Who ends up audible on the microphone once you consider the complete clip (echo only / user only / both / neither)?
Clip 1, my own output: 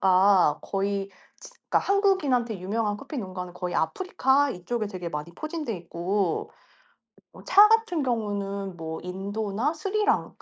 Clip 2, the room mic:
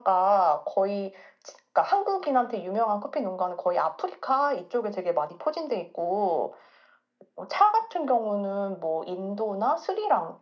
echo only